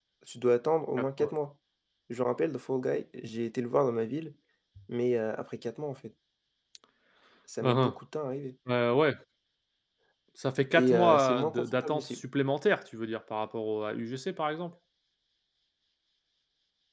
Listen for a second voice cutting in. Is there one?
Yes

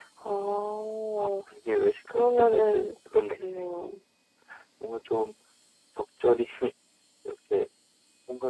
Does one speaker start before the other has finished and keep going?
Yes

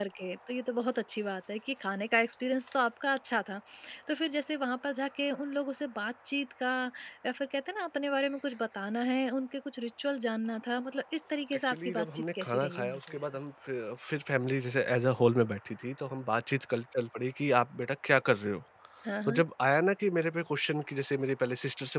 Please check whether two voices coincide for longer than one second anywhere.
Yes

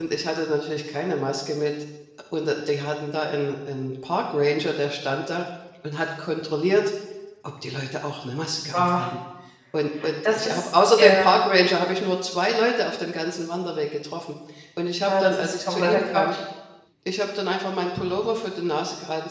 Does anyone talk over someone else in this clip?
Yes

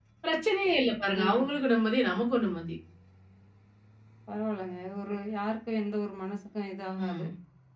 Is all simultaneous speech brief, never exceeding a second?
Yes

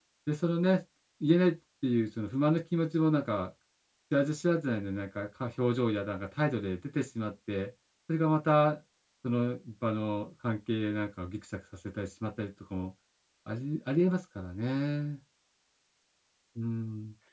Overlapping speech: No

